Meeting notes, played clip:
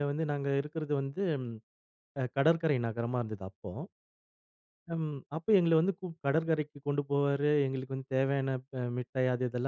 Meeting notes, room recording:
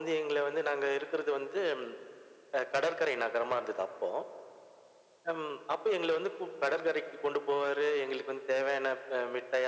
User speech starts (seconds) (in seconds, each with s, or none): none